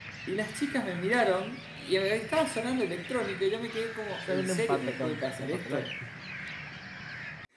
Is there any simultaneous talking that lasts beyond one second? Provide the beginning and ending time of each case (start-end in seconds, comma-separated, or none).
4.2-5.9